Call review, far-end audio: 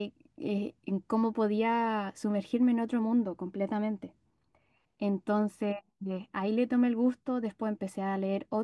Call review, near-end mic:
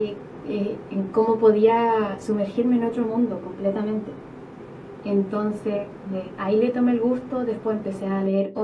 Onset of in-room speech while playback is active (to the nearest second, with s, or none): none